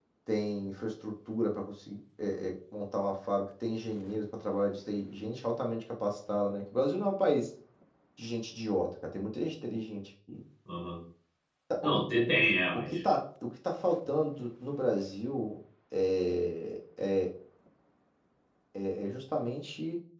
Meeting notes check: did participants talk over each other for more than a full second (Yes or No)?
No